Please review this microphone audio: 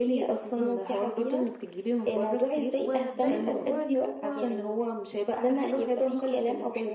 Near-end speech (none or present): present